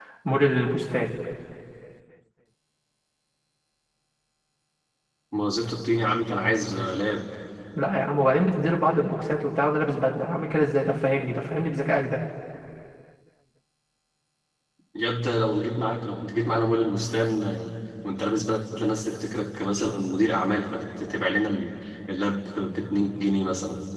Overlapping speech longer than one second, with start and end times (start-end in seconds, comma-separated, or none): none